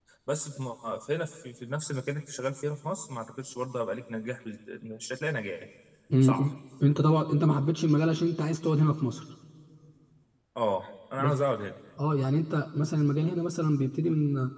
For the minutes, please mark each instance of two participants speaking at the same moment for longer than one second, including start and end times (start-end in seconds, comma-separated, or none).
none